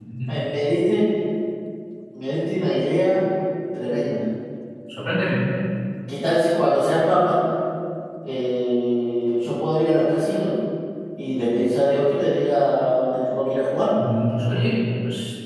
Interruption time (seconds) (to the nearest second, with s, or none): none